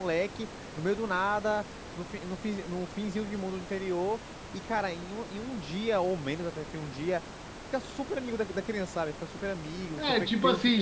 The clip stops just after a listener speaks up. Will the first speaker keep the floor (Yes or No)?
No